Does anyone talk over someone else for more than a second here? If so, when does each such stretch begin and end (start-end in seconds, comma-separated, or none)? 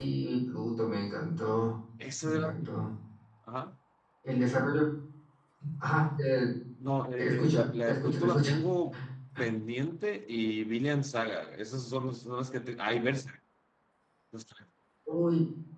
7.2-8.6